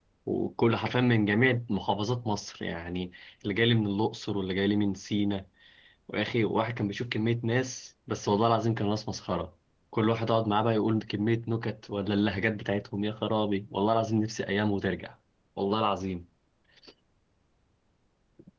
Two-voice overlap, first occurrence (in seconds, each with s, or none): none